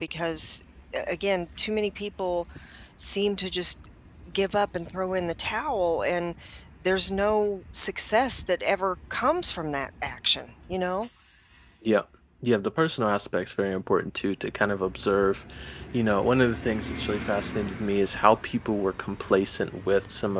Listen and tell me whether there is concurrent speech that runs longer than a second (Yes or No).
No